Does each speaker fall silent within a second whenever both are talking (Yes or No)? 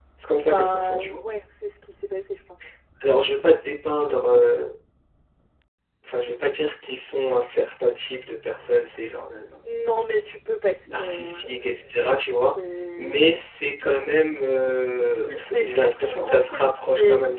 No